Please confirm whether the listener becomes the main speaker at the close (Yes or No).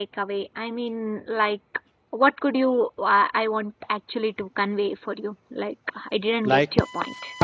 Yes